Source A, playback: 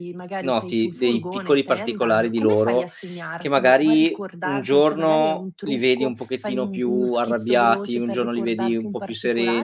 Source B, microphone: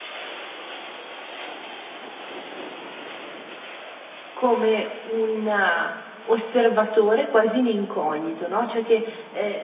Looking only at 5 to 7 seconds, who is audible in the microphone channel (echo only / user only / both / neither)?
user only